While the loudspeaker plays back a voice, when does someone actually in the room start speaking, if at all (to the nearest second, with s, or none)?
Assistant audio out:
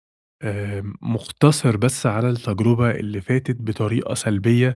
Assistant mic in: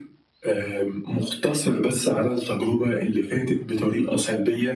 none